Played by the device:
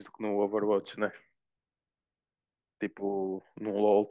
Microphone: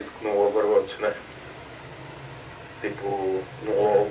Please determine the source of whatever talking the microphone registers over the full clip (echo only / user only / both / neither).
echo only